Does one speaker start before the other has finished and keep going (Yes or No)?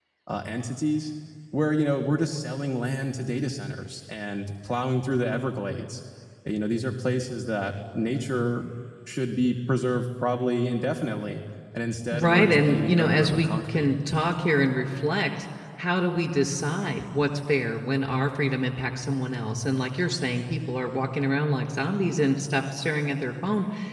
Yes